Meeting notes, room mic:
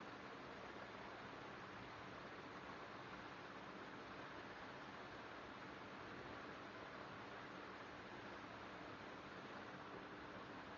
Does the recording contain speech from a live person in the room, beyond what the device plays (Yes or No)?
No